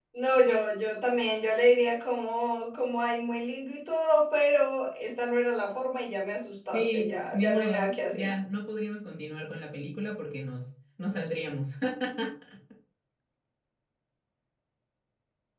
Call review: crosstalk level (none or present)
present